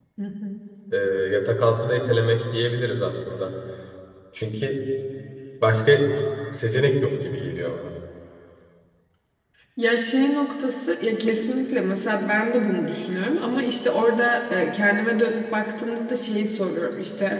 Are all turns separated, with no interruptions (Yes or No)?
Yes